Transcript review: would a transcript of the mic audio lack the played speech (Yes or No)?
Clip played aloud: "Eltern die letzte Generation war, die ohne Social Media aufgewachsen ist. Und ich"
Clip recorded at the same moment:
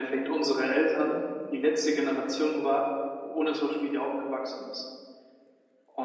No